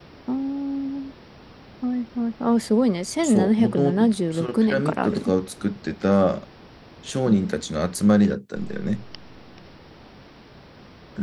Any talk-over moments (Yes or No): Yes